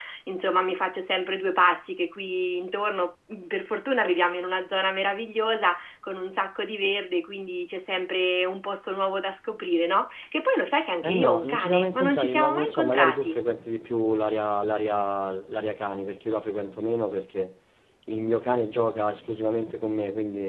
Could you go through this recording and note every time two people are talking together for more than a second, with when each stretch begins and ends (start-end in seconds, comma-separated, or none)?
11.0-13.4